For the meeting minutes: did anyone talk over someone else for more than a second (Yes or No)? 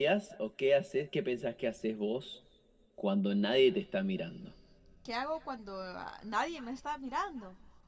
No